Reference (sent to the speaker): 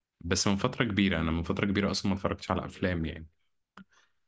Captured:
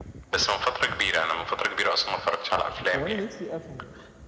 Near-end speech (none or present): present